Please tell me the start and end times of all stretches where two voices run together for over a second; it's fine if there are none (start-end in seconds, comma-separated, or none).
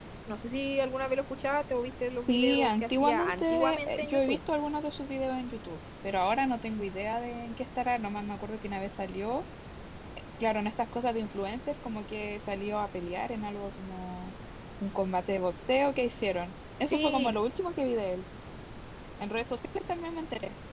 2.3-4.4